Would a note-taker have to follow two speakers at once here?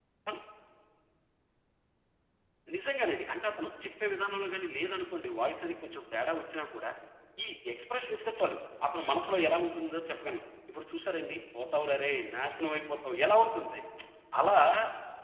No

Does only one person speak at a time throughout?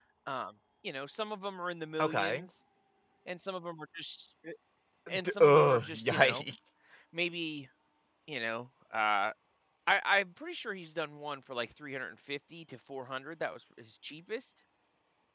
No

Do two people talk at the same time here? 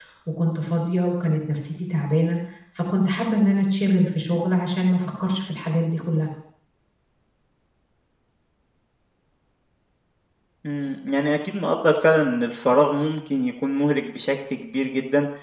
No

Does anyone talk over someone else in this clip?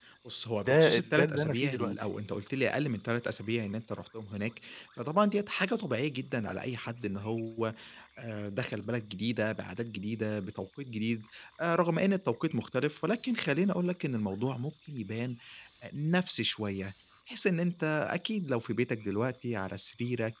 Yes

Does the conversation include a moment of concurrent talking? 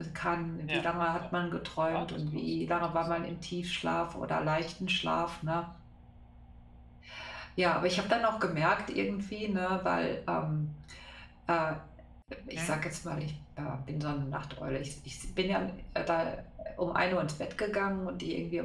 Yes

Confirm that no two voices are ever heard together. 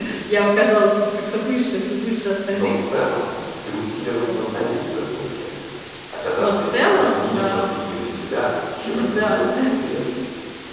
No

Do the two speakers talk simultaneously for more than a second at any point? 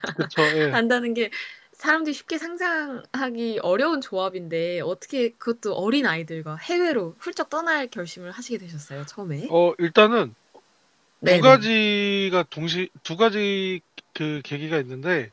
No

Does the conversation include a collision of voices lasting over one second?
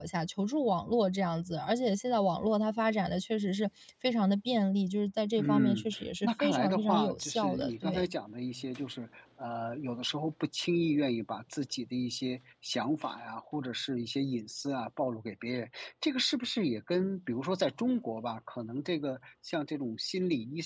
Yes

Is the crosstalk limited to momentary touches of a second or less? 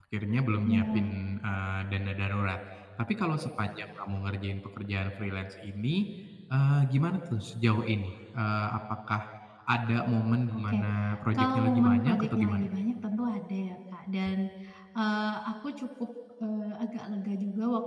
No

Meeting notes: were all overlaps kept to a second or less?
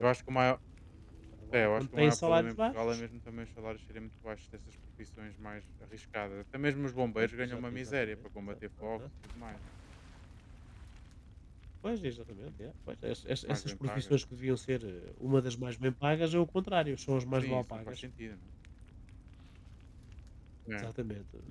No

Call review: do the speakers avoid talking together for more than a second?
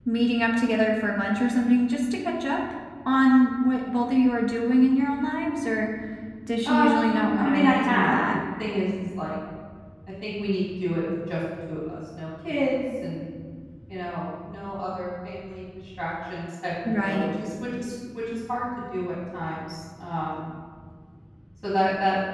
No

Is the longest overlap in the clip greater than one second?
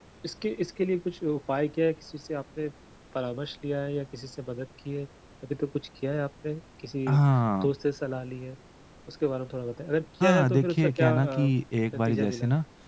Yes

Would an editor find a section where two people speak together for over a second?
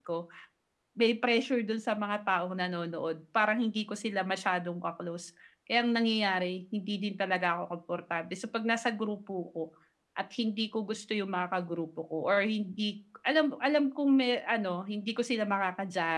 No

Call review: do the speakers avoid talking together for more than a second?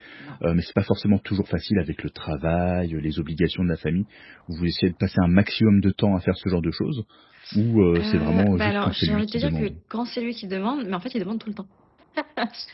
No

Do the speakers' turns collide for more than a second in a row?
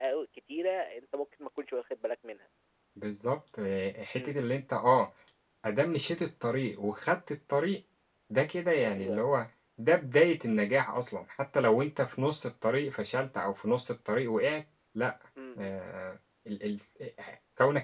No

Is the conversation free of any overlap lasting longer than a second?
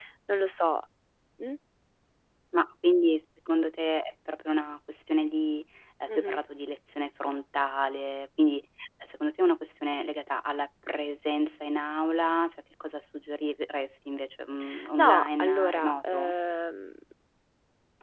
No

